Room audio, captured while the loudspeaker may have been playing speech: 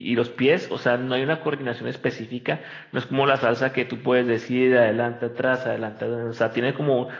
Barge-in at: none

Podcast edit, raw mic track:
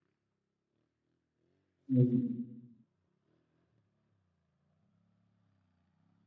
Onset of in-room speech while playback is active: 2 s

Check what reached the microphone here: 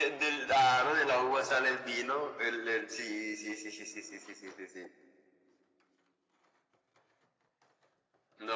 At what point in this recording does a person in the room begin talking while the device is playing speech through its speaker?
none

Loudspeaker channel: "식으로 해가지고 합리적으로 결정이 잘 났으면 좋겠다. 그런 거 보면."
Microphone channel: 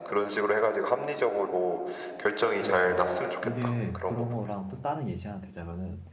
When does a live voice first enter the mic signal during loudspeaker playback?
3 s

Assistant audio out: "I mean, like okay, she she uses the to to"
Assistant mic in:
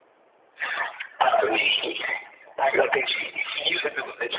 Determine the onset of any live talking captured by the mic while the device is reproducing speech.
none

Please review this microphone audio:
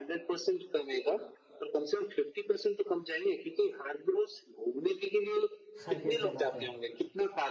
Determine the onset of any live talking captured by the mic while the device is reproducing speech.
6 s

